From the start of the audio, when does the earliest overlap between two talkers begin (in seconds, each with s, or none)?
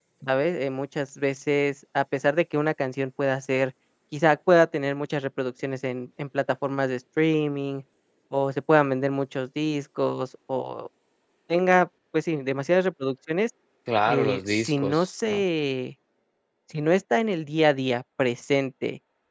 14.1 s